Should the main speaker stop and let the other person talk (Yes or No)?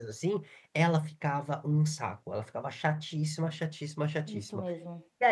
No